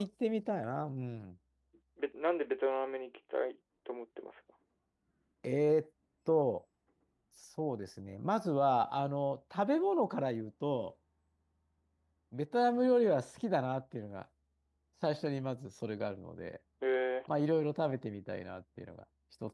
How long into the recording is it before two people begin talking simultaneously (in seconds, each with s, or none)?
none